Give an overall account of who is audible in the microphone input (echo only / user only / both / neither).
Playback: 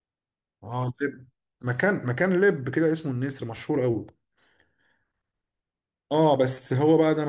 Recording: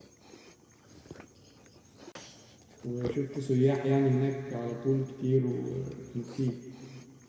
user only